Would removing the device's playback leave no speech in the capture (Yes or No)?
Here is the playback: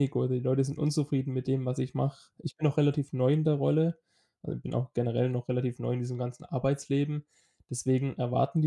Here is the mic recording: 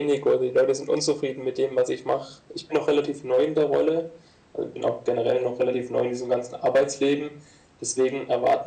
Yes